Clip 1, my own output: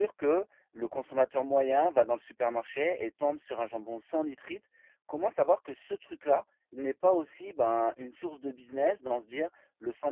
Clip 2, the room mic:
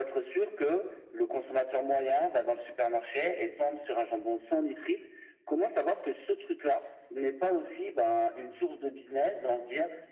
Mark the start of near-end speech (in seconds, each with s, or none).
none